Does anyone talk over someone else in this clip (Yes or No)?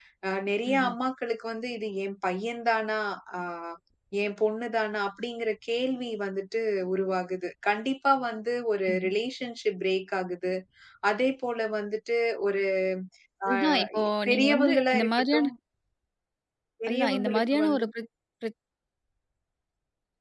Yes